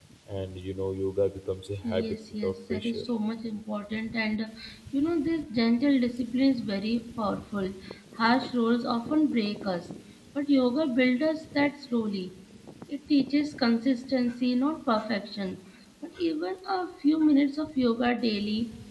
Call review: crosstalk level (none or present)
present